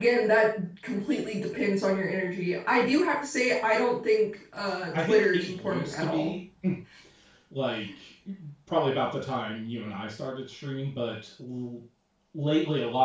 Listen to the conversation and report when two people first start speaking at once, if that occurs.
4.9 s

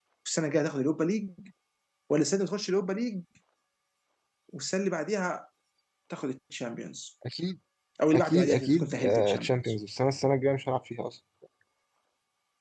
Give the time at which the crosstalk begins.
8.1 s

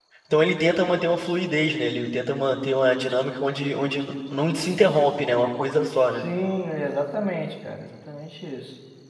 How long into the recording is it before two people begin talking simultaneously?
none

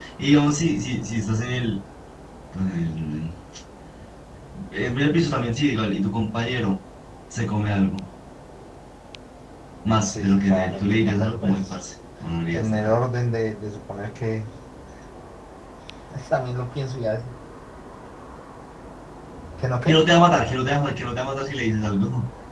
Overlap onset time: 10.0 s

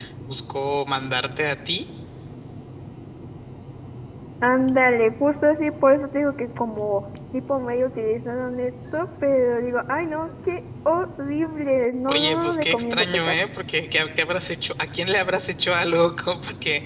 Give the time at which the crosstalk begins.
12.1 s

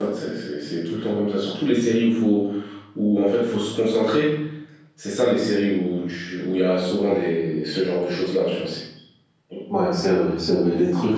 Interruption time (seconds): none

